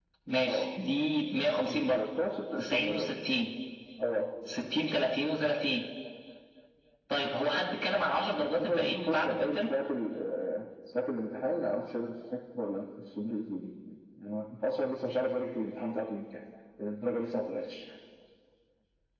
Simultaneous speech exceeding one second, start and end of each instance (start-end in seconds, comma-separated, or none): 8.4-9.7